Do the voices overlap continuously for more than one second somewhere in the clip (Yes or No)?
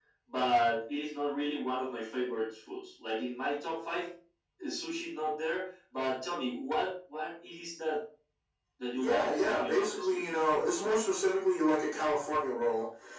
Yes